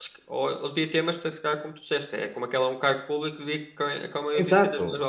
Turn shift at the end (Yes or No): Yes